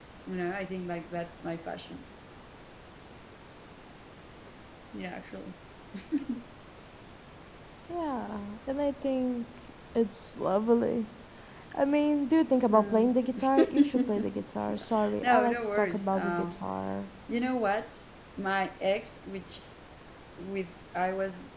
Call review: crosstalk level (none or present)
present